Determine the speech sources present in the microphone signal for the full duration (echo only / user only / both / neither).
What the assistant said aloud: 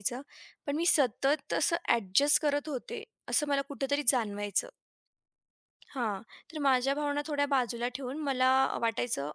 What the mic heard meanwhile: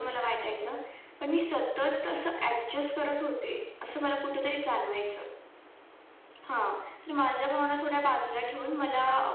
echo only